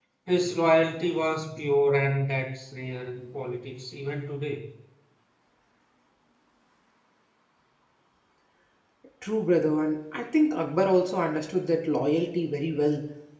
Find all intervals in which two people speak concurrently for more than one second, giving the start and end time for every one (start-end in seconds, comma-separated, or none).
none